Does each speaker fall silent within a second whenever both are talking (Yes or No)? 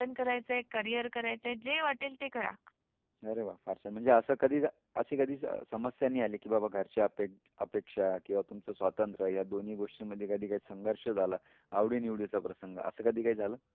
Yes